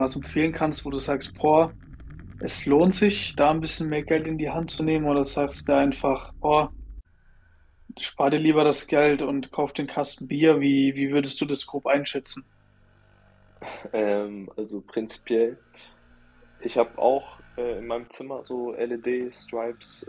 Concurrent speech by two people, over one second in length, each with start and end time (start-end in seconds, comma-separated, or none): none